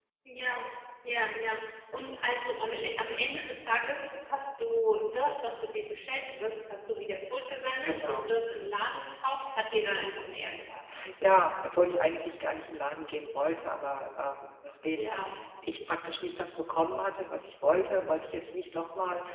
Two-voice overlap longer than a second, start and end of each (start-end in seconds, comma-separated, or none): none